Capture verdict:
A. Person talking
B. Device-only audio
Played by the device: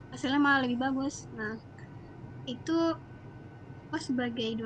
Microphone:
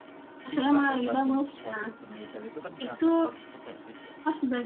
A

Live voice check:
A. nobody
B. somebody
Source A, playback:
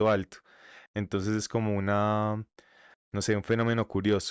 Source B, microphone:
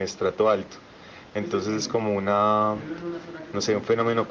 B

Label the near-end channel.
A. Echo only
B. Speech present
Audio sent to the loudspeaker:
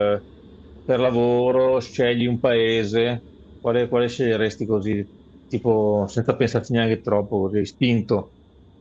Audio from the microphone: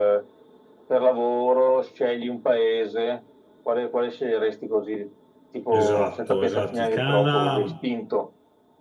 B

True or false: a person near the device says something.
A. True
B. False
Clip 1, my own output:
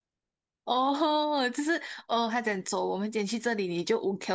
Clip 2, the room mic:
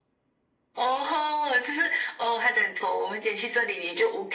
B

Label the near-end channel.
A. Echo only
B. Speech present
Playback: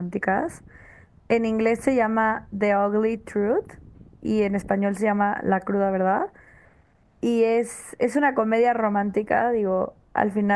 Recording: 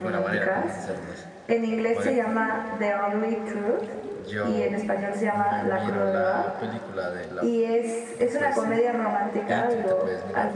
B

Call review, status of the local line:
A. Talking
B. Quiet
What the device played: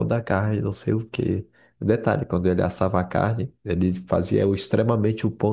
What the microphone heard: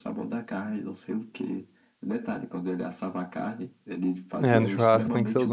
A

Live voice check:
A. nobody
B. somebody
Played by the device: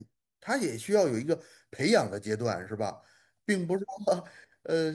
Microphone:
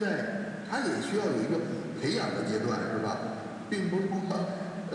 A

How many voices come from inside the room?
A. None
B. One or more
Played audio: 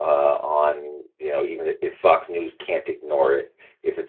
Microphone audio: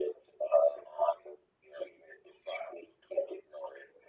A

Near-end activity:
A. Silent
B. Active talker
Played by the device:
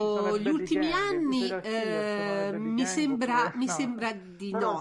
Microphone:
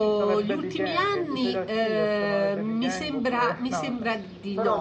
A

